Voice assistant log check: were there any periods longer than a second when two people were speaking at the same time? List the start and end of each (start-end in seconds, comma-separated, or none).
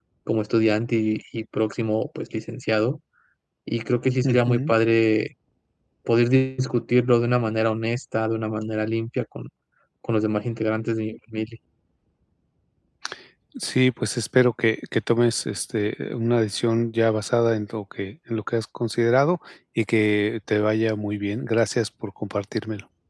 none